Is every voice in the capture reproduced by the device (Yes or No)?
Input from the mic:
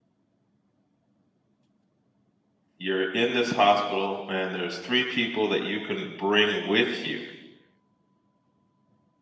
No